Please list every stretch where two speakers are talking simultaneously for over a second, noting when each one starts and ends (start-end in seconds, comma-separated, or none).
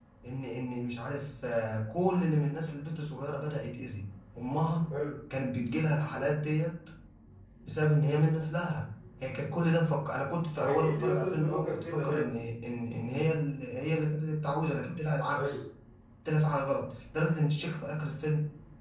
10.6-12.4